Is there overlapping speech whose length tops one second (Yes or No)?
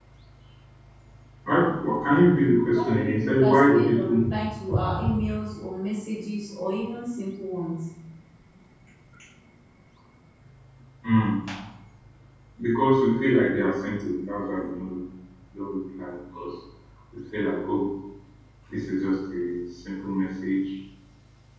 Yes